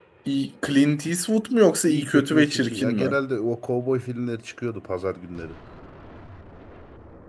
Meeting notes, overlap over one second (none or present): present